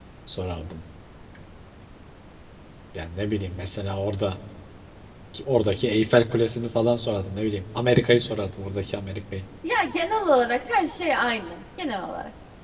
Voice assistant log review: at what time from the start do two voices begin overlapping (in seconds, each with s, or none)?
none